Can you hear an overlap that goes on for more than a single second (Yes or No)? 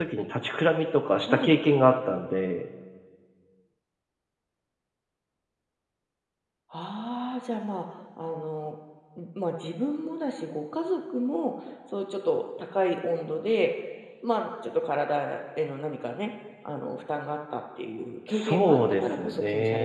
Yes